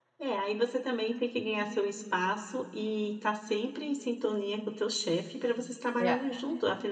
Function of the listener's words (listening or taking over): listening